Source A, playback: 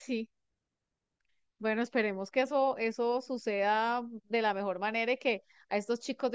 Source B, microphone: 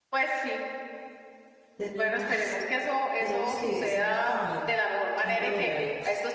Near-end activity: present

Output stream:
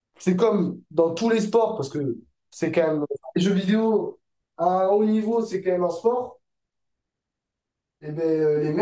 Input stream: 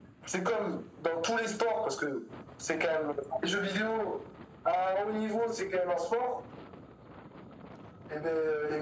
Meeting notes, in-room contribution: none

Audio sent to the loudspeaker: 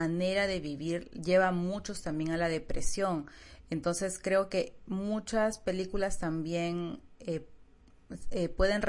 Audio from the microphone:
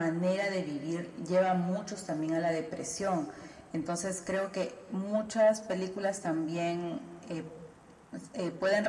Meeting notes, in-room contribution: none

